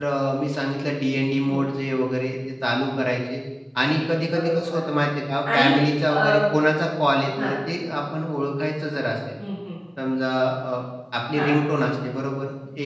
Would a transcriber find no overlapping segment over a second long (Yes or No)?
Yes